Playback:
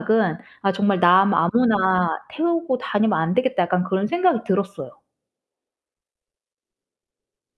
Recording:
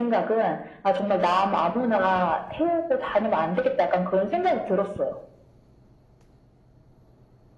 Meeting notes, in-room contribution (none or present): none